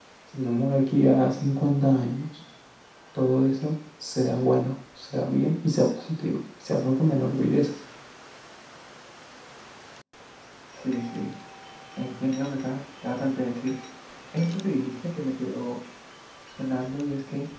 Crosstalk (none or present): none